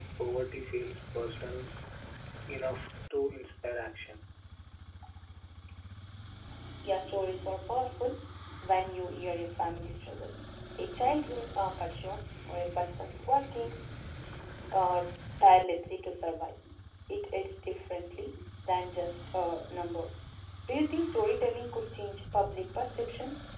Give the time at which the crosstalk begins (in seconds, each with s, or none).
none